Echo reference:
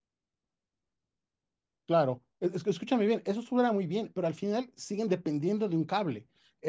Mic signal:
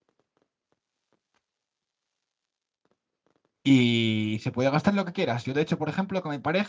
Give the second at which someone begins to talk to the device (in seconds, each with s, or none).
3.6 s